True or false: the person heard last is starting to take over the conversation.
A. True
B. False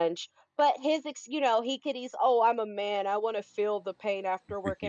B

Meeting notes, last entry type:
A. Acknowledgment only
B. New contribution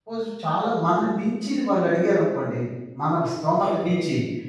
A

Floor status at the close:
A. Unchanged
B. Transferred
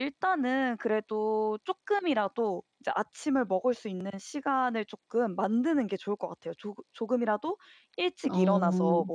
A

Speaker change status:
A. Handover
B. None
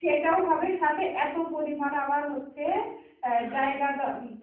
B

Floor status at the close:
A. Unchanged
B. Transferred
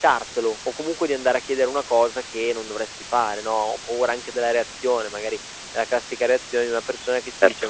A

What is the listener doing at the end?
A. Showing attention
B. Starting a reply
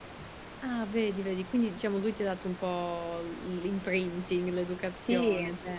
B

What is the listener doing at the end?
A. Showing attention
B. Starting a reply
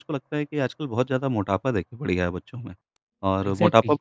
A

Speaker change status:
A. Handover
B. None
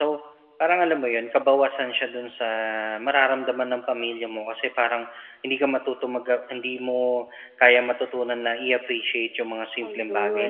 B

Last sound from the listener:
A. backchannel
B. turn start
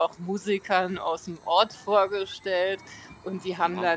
A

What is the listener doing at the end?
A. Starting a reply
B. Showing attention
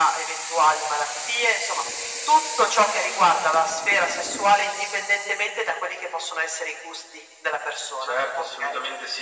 A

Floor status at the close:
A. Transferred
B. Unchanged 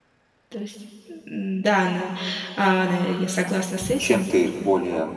A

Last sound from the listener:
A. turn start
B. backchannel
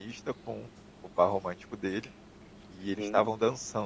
B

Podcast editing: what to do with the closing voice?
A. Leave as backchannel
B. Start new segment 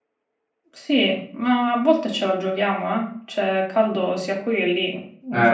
A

